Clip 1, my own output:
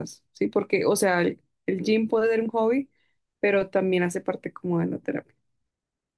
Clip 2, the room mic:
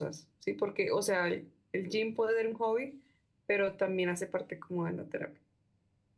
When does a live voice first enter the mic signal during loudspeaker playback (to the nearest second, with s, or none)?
none